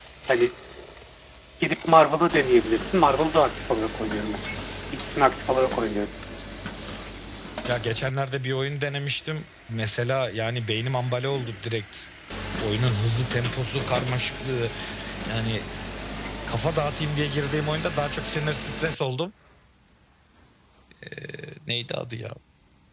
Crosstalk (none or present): none